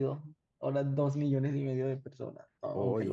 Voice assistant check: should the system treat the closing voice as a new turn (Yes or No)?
Yes